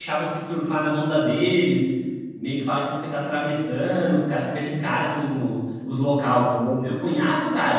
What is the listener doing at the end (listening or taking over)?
listening